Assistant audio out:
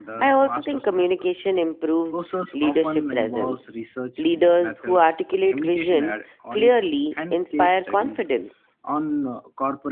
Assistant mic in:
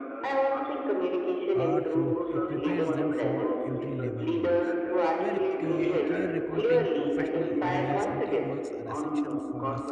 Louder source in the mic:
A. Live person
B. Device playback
B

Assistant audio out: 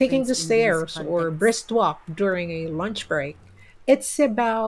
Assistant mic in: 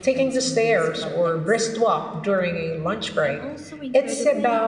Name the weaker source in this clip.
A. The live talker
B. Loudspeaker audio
A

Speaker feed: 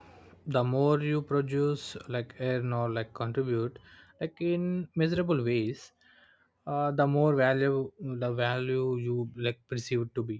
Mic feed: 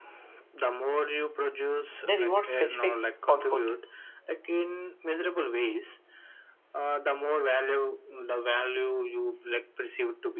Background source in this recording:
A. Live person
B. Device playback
B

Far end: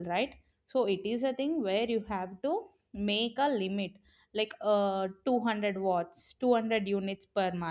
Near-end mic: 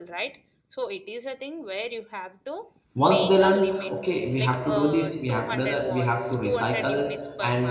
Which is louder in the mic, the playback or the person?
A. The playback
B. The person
B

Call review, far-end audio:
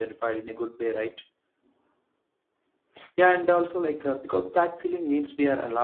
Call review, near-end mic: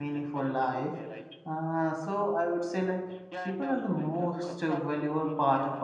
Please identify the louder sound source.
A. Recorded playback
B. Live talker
B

